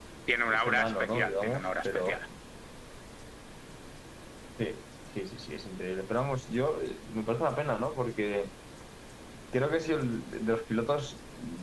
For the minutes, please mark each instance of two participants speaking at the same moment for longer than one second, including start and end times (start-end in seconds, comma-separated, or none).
0.5-2.2